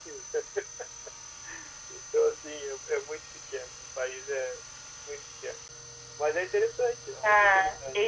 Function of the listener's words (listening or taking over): taking over